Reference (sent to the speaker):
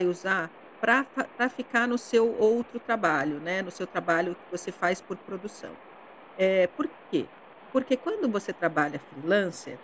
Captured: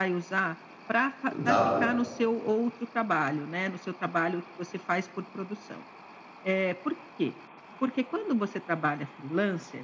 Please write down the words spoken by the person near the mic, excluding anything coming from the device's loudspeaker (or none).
dá